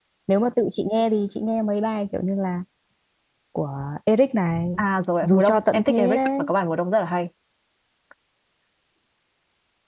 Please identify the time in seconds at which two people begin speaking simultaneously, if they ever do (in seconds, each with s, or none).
5.2 s